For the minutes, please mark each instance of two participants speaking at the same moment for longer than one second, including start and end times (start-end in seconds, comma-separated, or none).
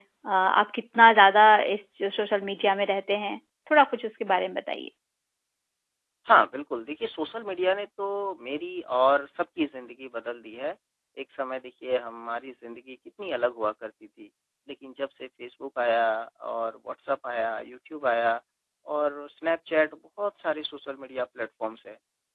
none